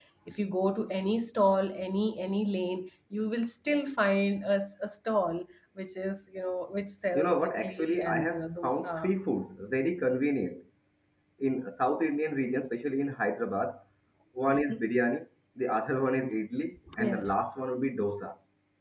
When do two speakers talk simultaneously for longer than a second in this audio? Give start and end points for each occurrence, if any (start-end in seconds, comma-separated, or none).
7.1-9.0